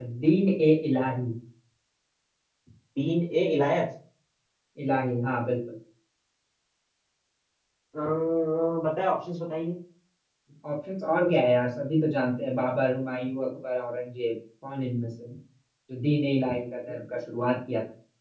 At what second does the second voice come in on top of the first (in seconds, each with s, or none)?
none